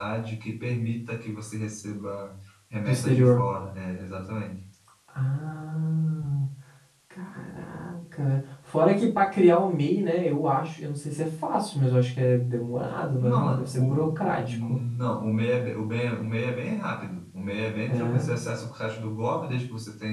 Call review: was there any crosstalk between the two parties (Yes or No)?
Yes